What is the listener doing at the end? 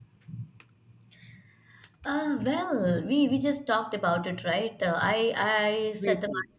listening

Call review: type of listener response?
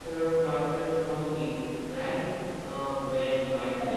listening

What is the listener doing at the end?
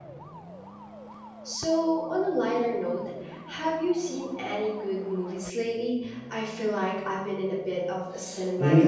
taking over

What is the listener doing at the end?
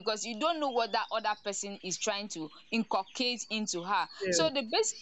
listening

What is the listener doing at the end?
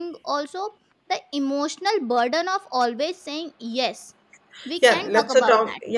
taking over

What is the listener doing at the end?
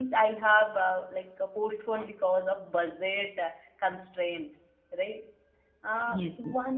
listening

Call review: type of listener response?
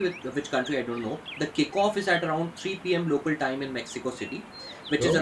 listening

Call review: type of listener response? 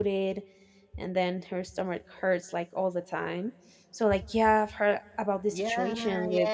taking over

